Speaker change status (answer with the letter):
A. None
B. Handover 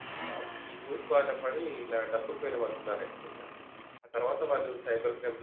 A